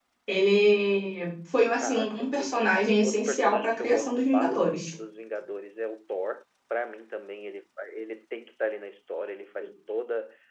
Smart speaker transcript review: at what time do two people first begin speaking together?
1.8 s

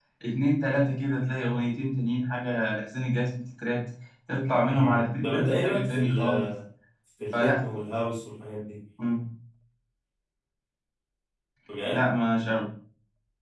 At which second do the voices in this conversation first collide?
4.7 s

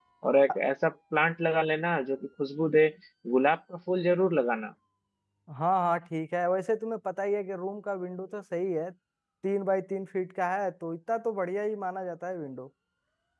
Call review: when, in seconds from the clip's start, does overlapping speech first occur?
none

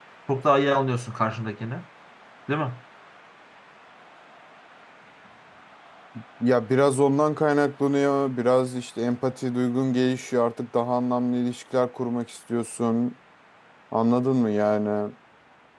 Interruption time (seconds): none

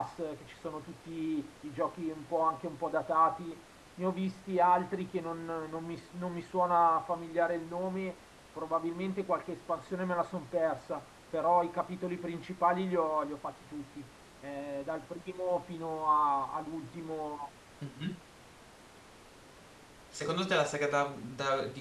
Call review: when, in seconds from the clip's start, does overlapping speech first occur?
none

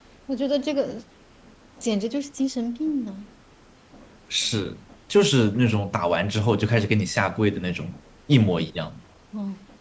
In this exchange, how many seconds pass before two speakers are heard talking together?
none

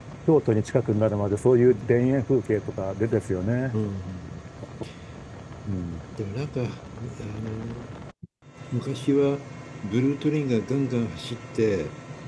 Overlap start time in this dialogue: none

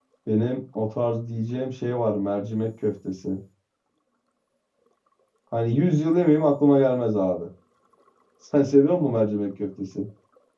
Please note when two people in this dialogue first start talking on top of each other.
none

